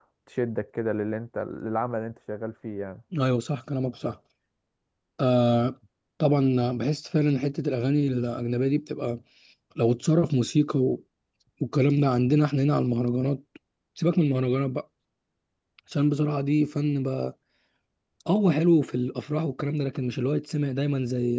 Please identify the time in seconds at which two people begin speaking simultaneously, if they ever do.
none

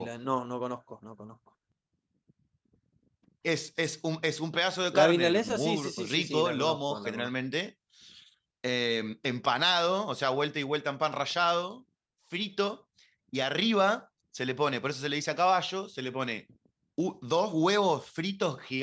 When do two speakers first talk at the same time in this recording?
4.9 s

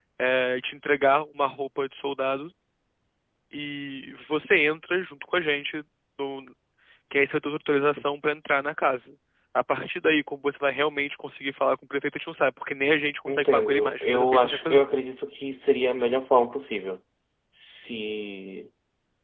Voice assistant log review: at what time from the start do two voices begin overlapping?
13.3 s

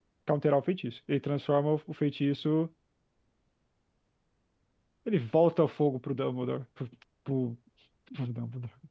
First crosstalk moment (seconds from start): none

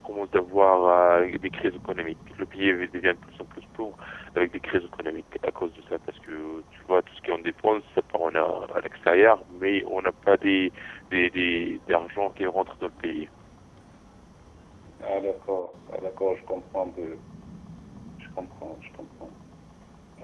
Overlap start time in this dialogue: none

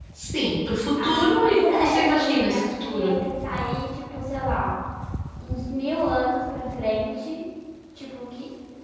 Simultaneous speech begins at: 1.0 s

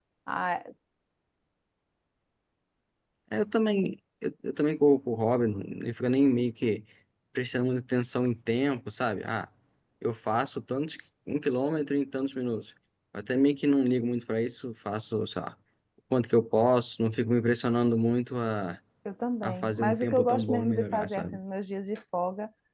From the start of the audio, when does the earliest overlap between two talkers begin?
19.4 s

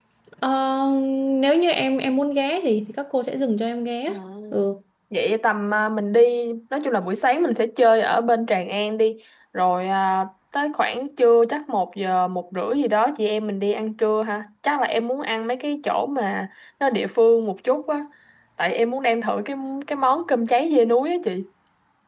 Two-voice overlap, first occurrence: none

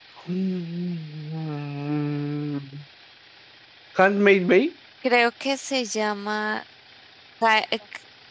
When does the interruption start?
none

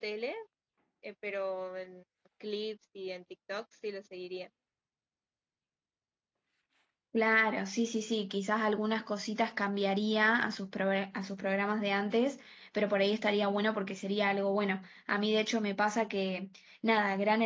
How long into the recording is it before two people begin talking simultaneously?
none

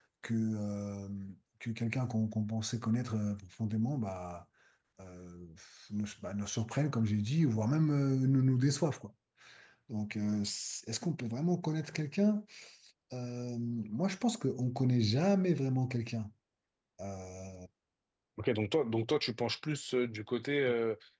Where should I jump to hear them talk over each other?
none

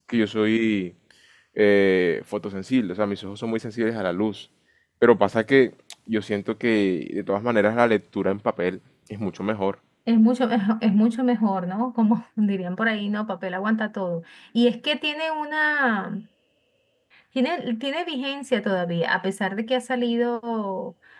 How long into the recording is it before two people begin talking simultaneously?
none

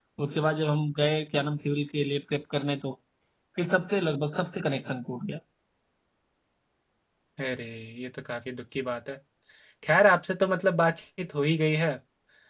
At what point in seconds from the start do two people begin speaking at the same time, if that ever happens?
none

